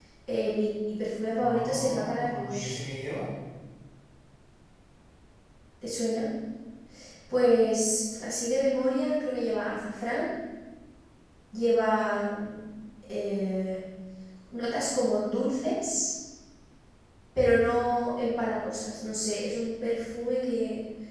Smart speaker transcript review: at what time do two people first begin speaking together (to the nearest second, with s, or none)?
1 s